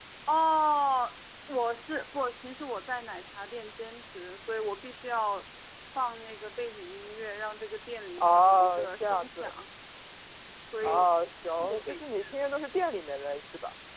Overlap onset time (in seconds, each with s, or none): 8.2 s